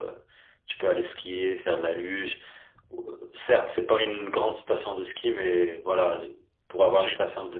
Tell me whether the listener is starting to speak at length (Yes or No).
No